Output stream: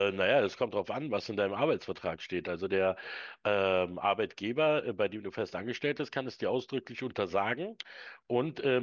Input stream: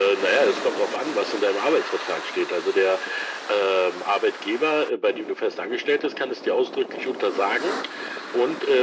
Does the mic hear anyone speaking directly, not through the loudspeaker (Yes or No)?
No